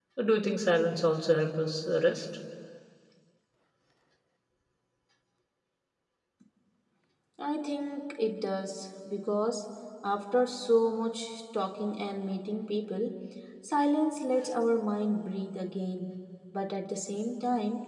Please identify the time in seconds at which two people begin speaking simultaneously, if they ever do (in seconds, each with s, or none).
none